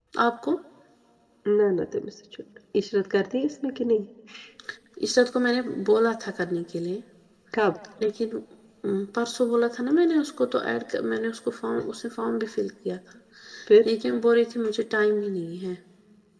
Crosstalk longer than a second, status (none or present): none